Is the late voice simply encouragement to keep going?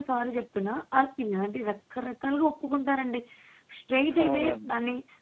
Yes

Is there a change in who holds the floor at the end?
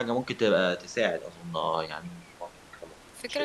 Yes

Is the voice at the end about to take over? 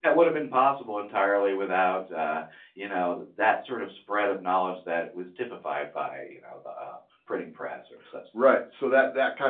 Yes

